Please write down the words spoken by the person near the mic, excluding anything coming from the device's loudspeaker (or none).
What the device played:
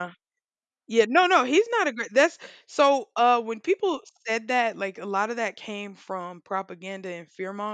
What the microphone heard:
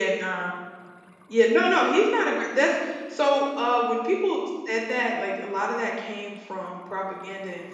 none